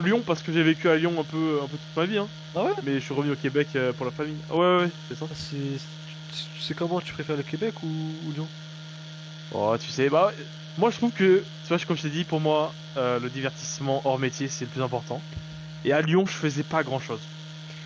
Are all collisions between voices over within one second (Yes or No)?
Yes